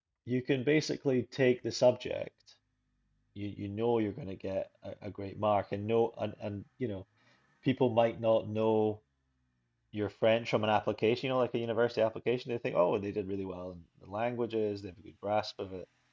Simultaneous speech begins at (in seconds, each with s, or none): none